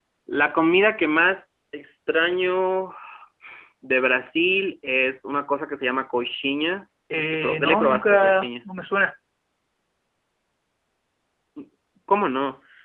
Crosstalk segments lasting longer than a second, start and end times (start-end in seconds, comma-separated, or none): 7.1-8.5